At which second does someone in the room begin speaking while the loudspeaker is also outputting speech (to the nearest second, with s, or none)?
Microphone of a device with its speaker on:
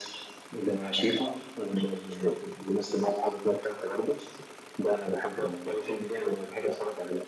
none